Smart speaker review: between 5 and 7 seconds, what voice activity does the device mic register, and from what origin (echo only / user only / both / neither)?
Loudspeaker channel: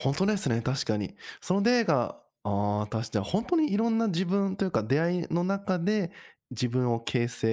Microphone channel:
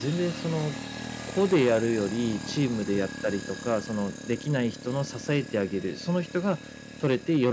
user only